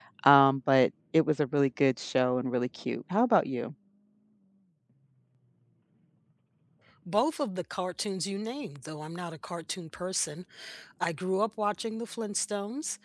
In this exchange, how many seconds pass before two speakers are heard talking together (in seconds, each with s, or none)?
none